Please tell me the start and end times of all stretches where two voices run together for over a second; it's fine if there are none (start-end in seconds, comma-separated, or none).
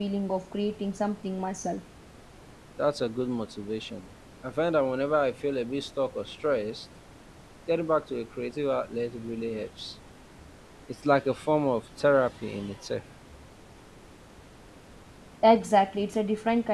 none